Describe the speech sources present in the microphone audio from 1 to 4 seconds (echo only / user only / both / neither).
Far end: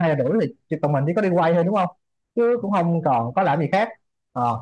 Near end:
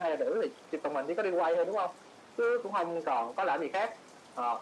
echo only